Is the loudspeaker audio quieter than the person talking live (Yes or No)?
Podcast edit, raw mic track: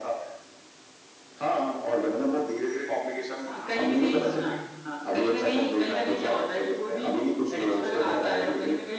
No